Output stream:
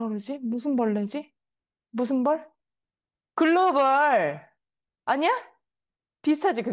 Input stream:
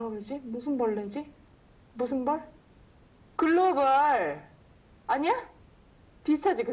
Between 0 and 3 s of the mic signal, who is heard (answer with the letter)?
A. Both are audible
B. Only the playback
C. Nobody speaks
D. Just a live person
B